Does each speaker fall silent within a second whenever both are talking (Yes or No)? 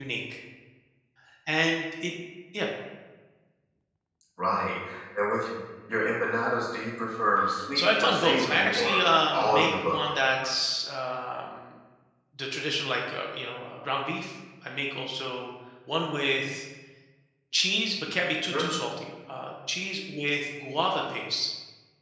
No